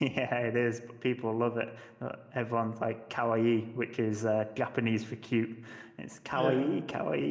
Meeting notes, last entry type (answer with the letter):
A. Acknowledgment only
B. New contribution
A